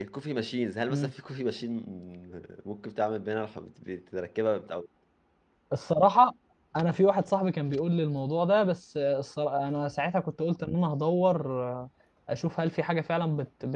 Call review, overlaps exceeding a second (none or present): none